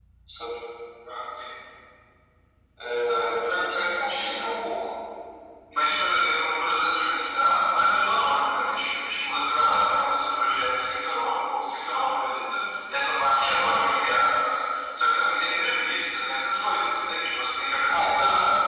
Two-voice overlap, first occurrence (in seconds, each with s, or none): 3.1 s